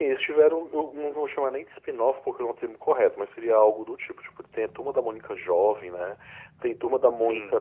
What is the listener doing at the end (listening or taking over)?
listening